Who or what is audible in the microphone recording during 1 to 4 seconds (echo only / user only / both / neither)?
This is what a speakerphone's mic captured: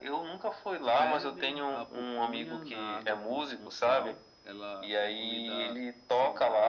both